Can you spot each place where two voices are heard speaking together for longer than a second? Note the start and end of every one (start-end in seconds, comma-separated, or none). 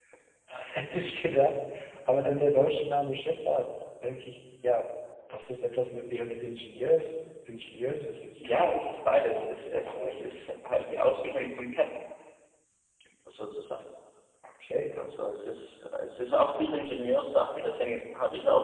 none